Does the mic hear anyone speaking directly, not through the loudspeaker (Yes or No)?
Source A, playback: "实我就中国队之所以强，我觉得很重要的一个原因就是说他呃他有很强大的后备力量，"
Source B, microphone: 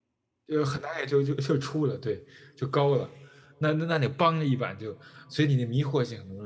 Yes